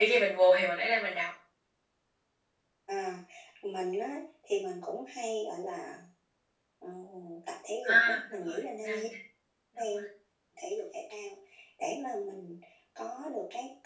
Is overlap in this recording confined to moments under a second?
No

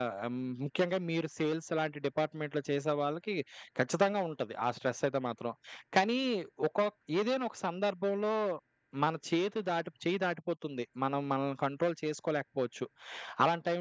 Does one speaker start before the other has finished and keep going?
No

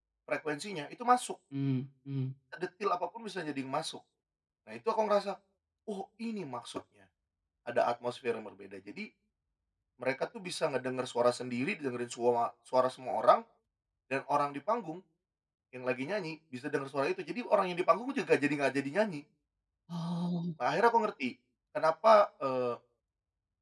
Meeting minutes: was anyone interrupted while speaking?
No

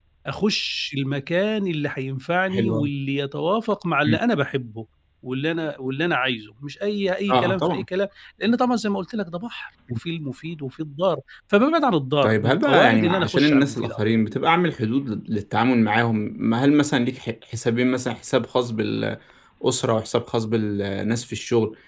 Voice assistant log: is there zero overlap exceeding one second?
No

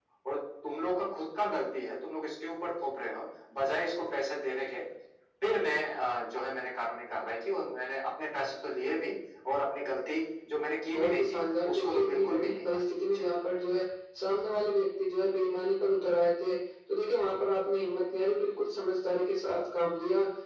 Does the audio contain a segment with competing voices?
Yes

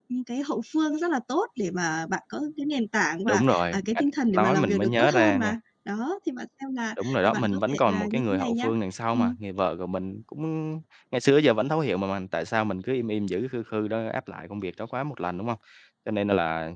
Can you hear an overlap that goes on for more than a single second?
Yes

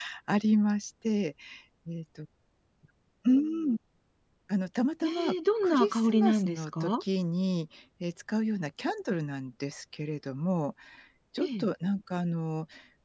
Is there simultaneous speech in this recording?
Yes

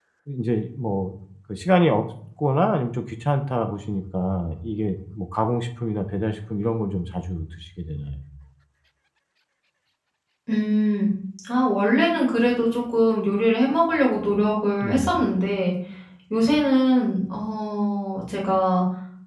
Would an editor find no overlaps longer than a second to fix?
Yes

